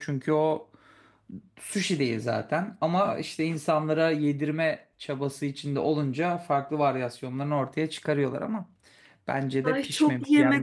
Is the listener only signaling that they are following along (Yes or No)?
No